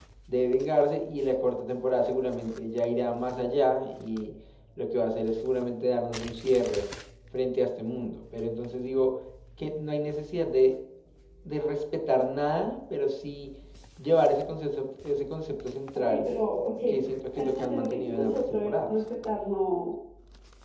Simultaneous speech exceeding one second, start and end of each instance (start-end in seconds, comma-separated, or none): 17.5-18.9